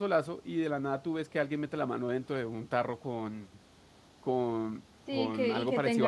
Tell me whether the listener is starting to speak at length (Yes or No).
Yes